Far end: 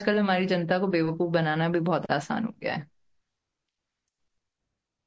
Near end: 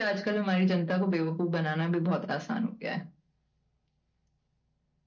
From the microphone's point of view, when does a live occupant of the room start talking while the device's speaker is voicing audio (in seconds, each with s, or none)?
none